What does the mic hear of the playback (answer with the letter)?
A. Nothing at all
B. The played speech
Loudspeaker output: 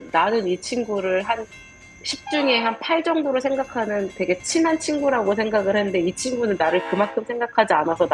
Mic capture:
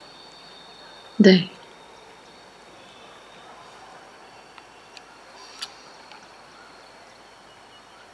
A